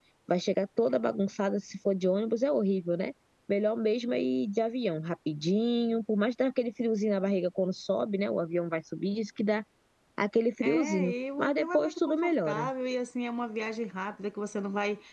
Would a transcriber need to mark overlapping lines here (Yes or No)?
Yes